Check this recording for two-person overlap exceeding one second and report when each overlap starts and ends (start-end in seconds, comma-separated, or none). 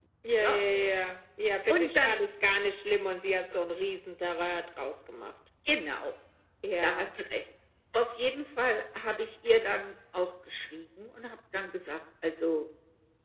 none